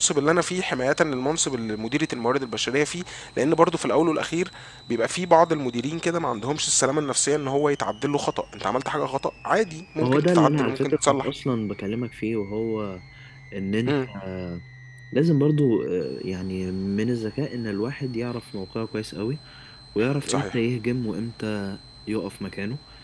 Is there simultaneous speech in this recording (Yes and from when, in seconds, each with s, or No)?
Yes, from 10.0 s